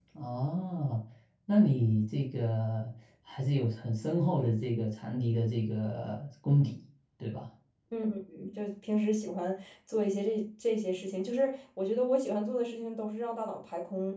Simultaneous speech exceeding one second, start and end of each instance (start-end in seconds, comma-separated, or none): none